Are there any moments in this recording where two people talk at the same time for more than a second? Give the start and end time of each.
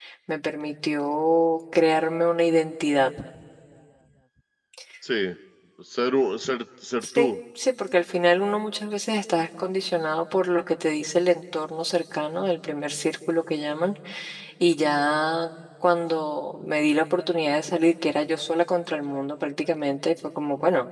none

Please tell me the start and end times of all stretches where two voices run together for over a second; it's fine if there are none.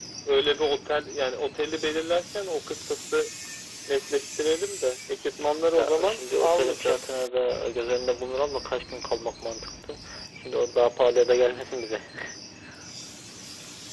5.8-7.0

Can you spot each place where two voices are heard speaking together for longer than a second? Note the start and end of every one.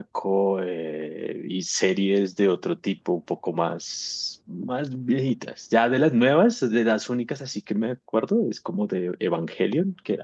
none

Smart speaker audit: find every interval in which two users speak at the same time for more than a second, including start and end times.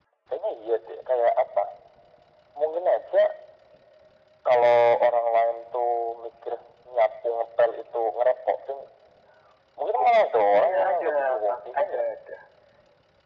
10.6-12.0

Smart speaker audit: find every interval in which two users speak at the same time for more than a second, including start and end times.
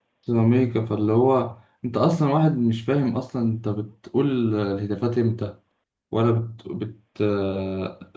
none

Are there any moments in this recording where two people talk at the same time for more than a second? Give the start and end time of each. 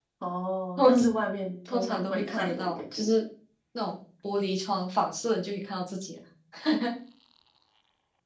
1.7-3.1

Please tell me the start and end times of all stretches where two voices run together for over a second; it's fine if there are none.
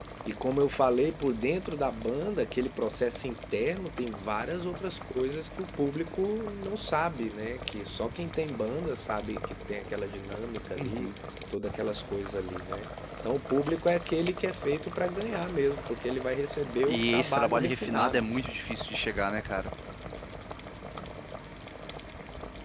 16.9-18.3

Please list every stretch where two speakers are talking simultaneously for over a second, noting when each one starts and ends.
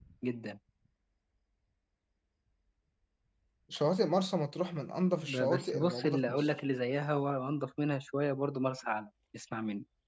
5.1-6.5

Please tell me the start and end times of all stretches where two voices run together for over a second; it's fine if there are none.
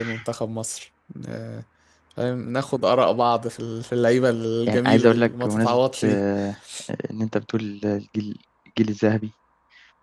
4.7-6.2

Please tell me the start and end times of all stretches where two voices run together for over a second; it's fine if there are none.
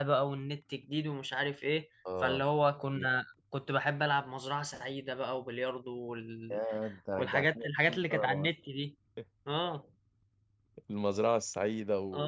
7.2-8.5

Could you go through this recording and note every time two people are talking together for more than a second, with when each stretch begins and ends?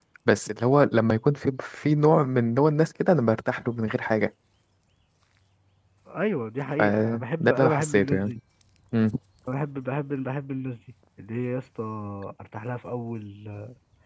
6.8-8.3

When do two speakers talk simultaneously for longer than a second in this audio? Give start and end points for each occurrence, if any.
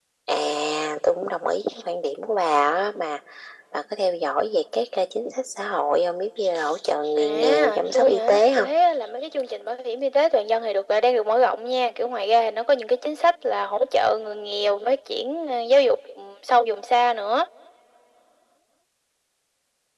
7.2-8.7

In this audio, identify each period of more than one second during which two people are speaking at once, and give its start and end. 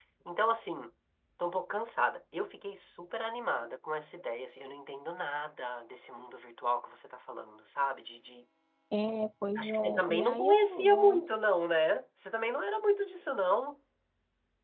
9.6-11.2

